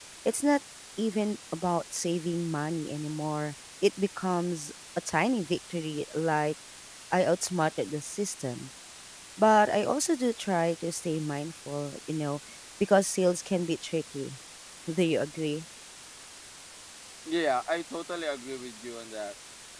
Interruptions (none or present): none